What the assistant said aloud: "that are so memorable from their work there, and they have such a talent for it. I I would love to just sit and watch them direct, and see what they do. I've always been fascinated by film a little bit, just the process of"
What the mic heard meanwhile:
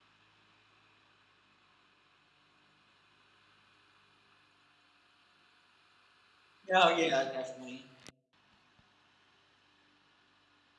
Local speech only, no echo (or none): Oh, yeah. Definitely.